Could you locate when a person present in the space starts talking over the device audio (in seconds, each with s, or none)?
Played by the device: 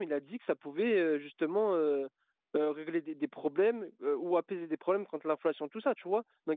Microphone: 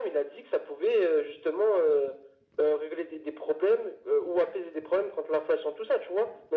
none